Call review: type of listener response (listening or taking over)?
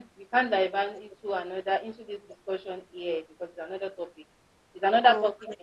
listening